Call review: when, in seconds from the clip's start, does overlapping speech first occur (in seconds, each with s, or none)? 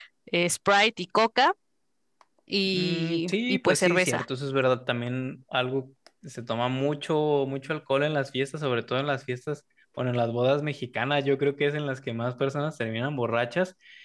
2.7 s